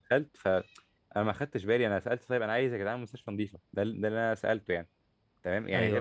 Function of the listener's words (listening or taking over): listening